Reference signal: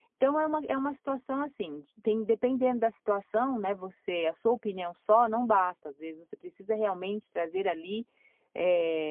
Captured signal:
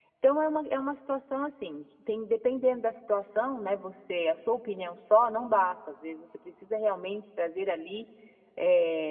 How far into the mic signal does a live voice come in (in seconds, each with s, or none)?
none